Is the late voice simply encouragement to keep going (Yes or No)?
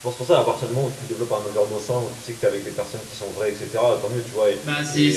No